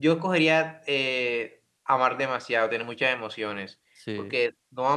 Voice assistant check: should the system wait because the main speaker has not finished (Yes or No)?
Yes